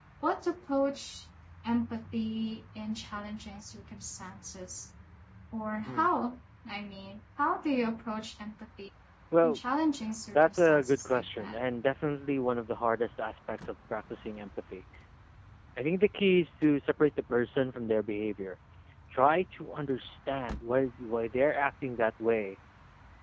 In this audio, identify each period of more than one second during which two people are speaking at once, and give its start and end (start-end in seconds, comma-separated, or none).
10.3-11.6